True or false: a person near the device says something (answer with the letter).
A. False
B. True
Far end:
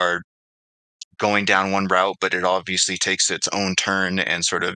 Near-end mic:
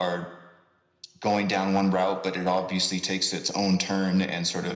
A